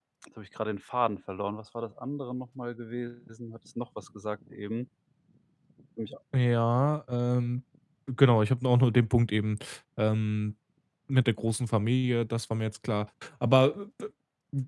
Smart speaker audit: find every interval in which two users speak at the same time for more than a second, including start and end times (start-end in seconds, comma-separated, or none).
none